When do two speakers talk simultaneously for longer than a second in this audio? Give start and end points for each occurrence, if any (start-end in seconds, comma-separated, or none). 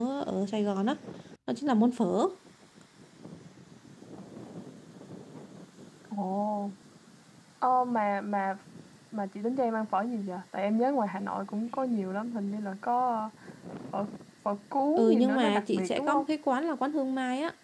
15.0-16.2